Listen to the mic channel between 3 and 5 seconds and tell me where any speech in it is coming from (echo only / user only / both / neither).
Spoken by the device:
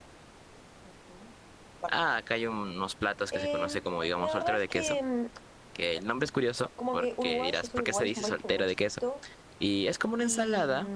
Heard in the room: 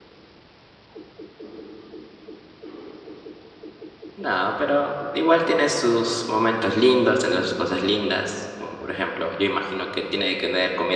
user only